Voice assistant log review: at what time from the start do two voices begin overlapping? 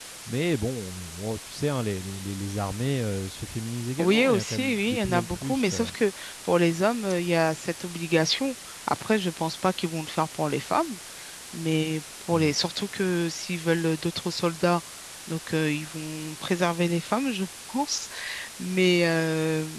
4.0 s

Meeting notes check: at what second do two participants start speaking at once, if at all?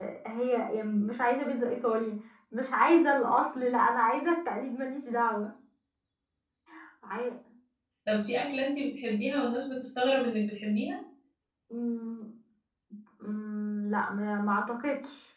none

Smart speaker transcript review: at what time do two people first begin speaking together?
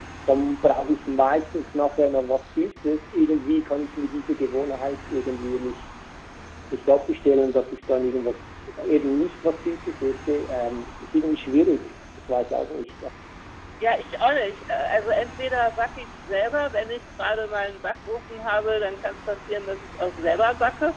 none

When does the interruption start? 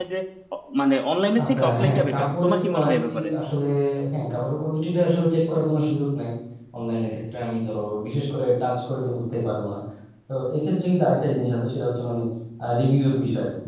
1.4 s

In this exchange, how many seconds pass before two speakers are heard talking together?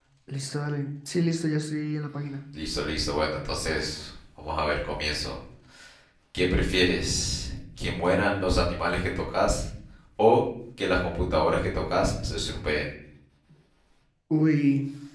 none

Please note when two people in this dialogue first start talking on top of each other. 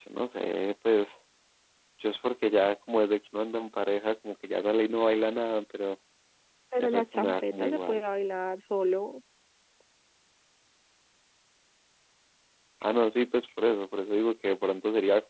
6.8 s

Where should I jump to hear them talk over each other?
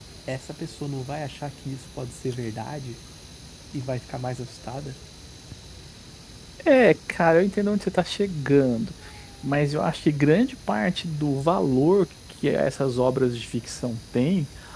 none

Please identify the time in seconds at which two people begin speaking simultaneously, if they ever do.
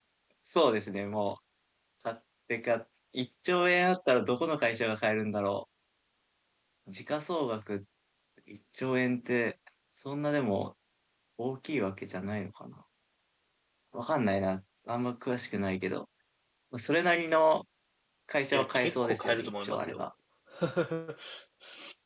18.5 s

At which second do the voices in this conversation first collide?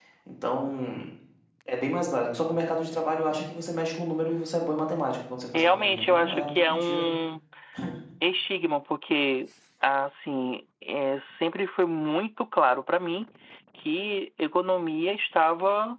5.5 s

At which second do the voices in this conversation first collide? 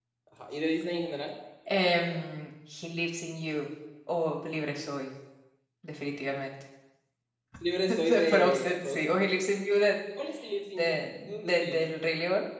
7.9 s

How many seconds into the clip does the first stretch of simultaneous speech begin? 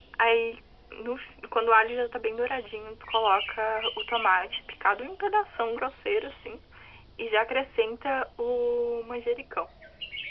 none

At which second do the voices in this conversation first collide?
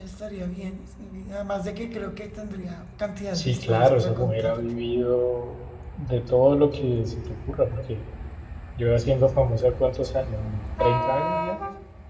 3.3 s

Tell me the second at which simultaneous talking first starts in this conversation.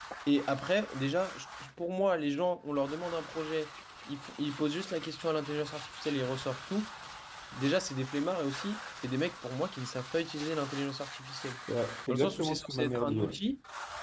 12.1 s

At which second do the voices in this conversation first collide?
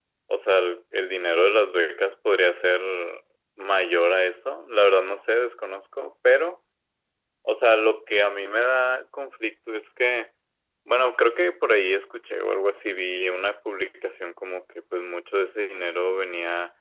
none

